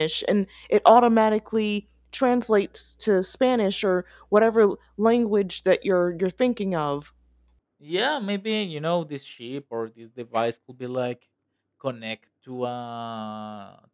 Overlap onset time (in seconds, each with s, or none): none